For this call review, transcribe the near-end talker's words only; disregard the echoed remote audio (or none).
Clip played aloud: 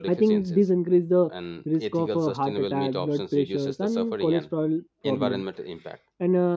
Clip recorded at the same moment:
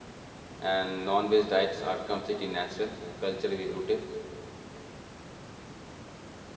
and non-veg diets are completely natural culturally rooted